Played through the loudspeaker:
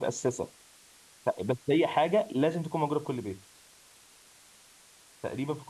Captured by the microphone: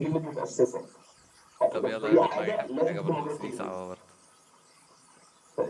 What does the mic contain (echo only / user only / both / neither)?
both